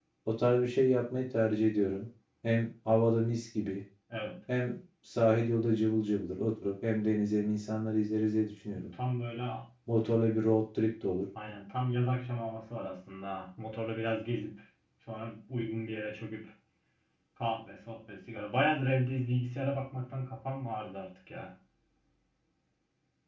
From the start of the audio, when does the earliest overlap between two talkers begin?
none

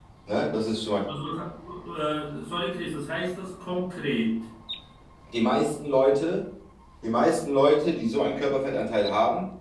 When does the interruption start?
none

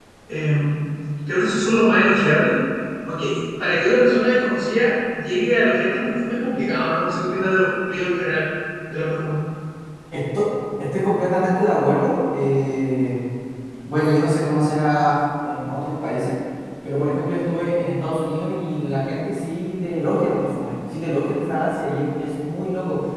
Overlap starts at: none

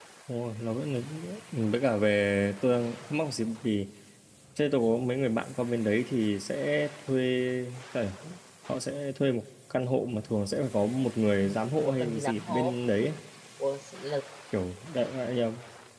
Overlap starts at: 11 s

